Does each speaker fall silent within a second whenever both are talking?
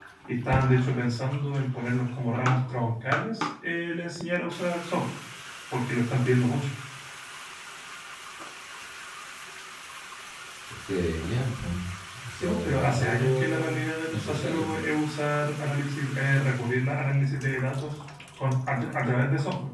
No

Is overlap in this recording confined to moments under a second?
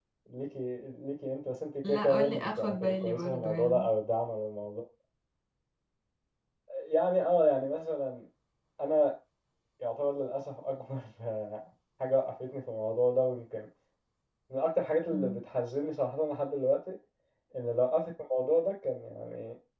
No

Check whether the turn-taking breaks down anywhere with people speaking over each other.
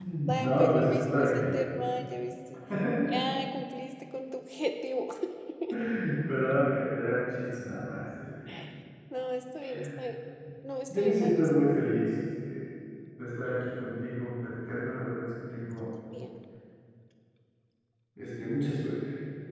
Yes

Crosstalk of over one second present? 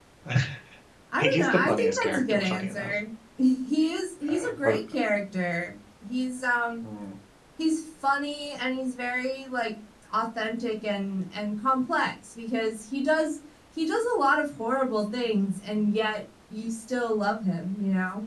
Yes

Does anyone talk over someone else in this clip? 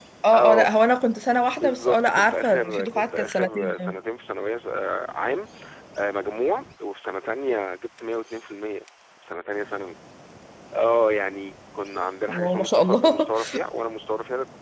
Yes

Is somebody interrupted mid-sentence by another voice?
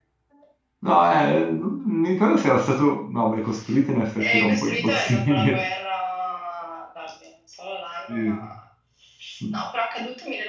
Yes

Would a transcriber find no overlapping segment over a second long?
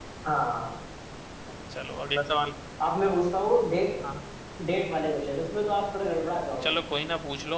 Yes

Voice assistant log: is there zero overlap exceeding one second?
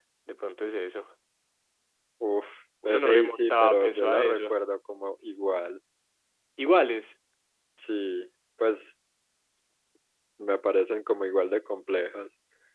No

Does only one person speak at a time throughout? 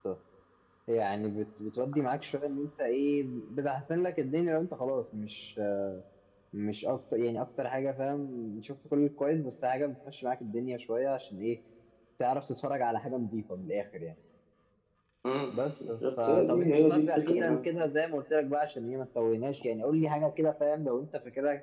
No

